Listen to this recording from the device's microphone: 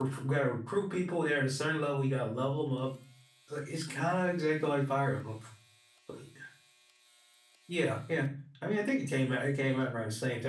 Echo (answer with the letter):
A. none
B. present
A